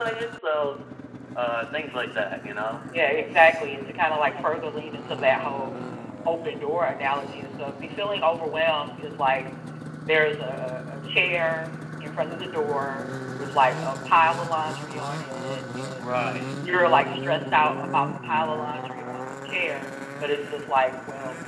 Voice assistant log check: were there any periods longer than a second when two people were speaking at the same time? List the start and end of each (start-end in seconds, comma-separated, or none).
none